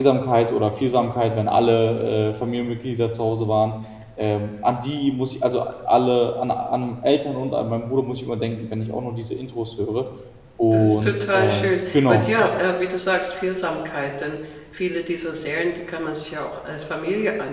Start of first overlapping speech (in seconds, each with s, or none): 10.7 s